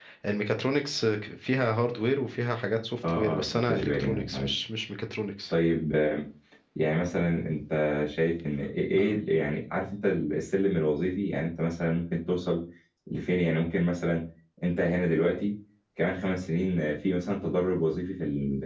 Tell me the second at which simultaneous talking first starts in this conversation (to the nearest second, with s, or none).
3 s